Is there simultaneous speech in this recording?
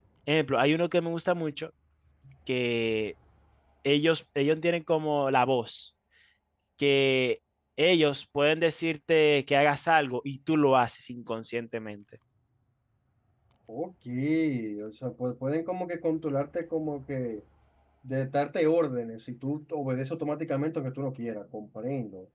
No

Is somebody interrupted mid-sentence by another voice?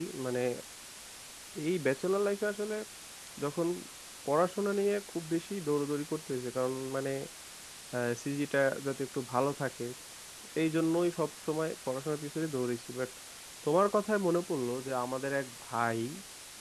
No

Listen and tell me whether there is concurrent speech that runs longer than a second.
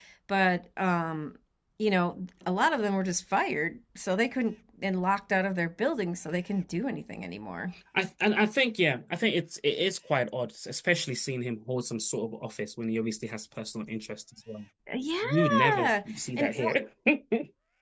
Yes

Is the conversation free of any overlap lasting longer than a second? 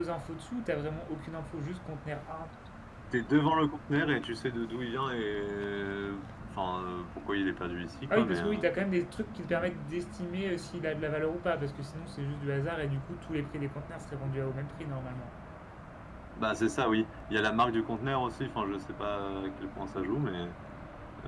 Yes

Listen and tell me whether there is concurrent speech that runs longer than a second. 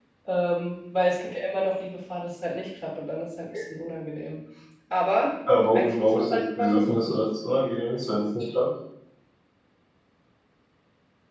Yes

